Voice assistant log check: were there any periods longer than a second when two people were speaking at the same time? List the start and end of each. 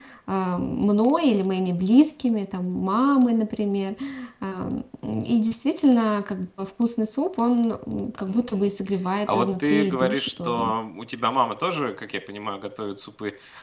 9.3-10.7

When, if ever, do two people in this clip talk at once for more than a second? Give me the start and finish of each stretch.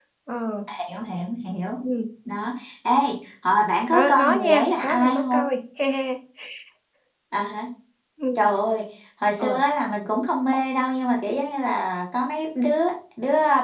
3.9-5.4

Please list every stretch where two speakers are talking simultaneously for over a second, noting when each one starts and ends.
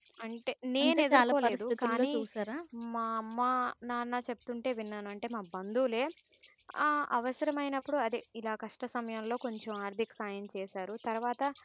0.8-2.1

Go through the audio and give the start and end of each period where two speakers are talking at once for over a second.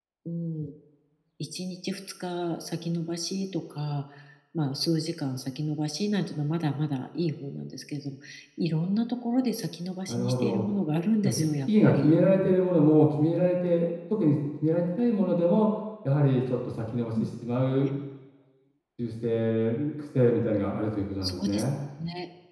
11.2-12.5

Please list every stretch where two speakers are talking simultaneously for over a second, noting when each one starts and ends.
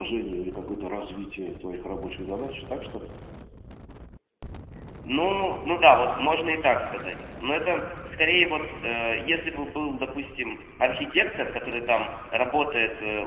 none

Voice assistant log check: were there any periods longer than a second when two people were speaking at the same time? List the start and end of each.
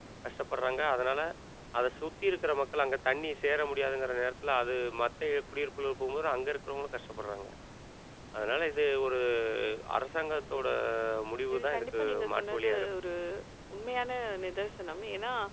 11.5-12.9

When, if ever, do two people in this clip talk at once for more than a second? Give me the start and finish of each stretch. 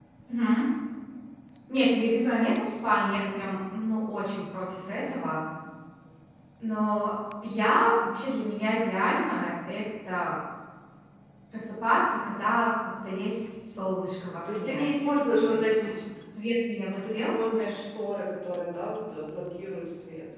none

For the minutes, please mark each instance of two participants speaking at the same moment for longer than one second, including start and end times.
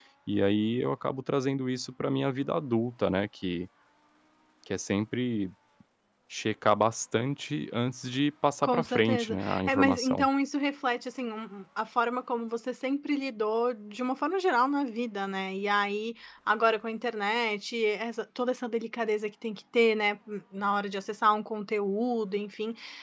8.6-10.3

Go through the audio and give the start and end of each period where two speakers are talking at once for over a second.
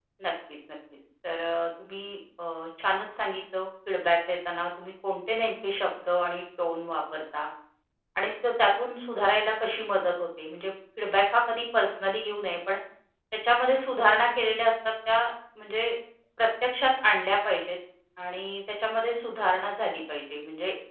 none

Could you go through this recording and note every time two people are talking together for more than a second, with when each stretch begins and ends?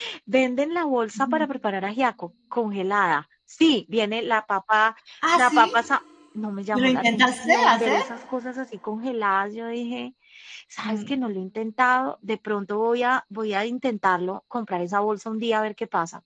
6.7-8.0

